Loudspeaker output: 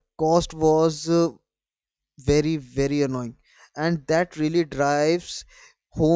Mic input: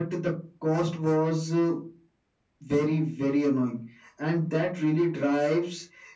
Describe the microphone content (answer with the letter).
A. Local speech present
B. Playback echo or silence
B